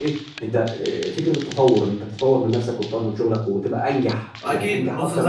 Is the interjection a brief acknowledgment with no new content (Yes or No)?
No